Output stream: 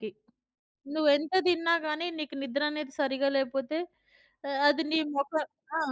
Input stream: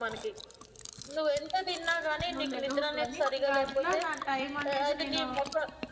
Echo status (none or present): present